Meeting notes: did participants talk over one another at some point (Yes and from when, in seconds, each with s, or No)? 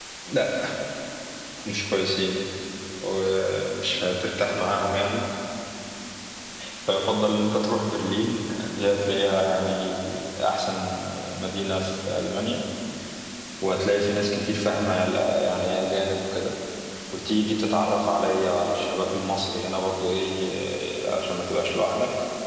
No